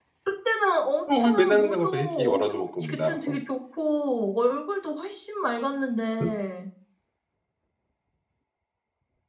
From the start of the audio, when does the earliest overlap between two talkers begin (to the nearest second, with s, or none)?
1 s